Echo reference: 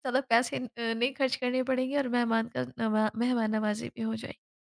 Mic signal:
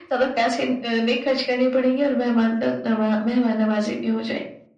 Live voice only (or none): none